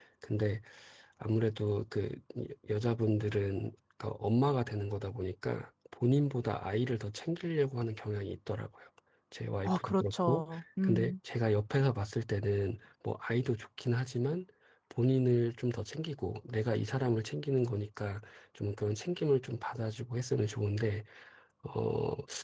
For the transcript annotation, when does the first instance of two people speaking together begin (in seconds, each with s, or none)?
9.7 s